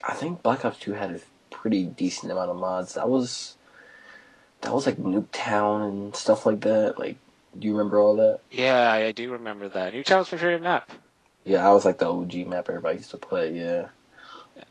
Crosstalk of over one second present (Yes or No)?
No